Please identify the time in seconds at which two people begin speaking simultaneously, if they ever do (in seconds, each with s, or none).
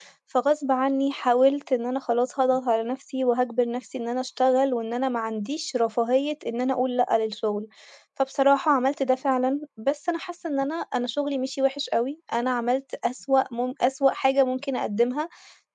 none